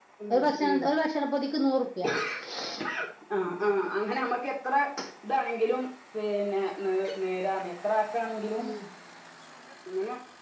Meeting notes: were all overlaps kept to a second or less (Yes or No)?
Yes